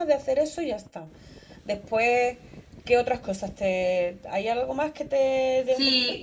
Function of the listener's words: taking over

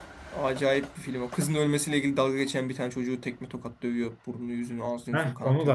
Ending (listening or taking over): taking over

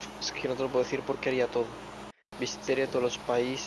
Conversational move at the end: listening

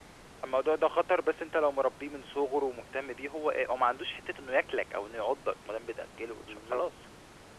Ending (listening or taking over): listening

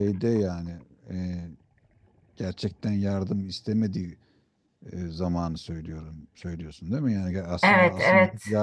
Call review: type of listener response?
taking over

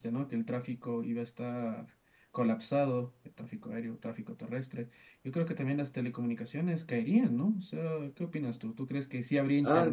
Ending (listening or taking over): taking over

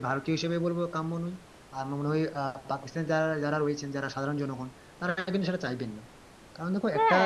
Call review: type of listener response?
taking over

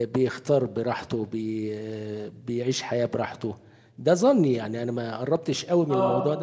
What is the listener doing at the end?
listening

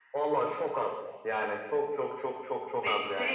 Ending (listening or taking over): taking over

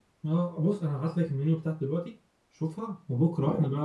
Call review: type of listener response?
listening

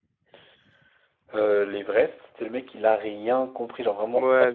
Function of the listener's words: taking over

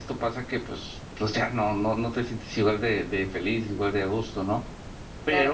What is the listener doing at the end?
taking over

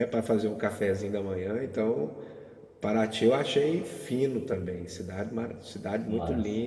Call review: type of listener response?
listening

